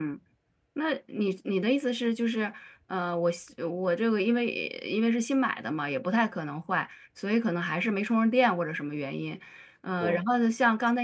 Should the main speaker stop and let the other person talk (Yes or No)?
No